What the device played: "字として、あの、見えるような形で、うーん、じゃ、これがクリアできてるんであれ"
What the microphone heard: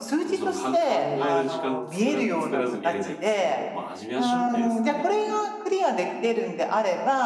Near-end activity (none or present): present